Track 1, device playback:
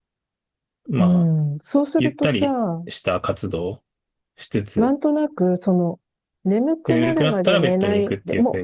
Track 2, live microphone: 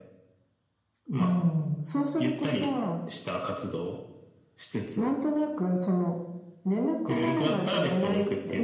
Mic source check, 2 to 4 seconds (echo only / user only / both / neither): echo only